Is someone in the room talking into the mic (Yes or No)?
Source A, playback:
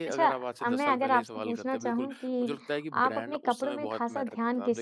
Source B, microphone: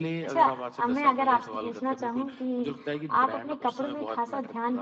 No